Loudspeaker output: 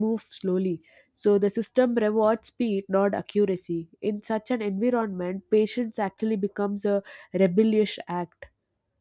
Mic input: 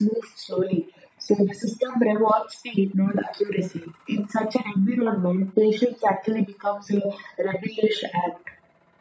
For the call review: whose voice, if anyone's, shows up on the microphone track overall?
echo only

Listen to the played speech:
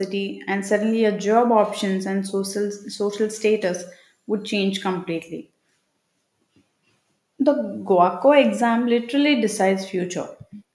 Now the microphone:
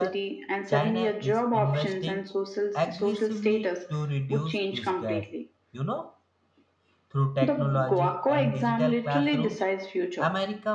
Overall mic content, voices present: both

